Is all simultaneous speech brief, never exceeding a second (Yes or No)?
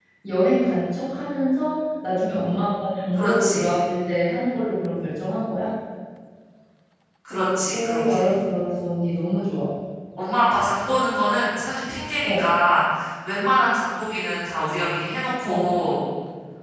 Yes